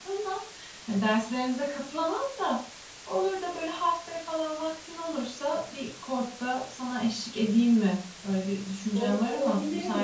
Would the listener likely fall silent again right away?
No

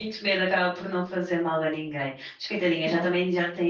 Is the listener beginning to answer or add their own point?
No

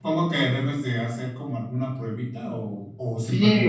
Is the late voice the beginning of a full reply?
Yes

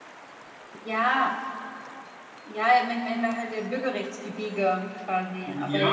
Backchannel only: No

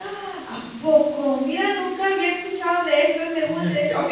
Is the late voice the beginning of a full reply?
Yes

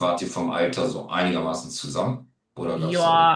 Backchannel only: No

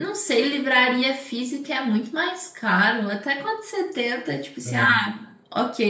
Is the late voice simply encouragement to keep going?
Yes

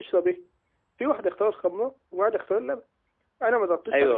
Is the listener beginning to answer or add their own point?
Yes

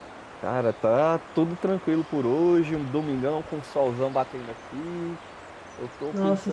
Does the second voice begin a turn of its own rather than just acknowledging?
No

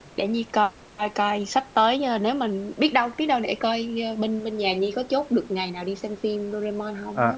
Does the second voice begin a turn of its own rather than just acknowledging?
Yes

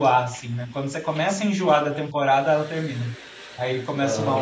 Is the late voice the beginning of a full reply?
Yes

